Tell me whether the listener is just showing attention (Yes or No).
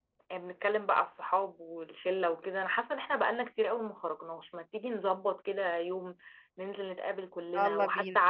Yes